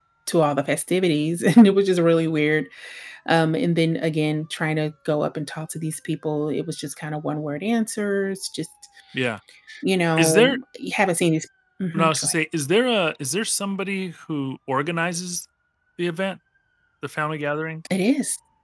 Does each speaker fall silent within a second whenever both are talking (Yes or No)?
Yes